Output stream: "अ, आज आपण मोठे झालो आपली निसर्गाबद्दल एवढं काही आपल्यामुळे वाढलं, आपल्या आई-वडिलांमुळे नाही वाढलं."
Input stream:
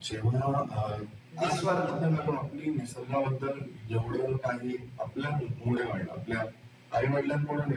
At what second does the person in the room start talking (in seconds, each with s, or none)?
1.4 s